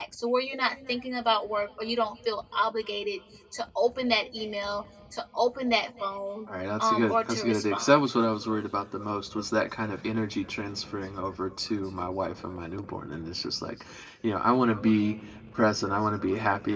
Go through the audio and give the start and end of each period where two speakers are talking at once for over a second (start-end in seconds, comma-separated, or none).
6.8-8.1